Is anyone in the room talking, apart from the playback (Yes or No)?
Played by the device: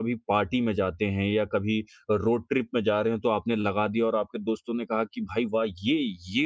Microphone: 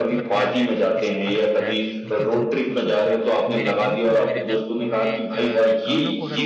Yes